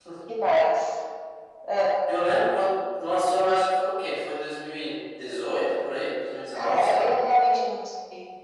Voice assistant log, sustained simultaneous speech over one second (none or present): none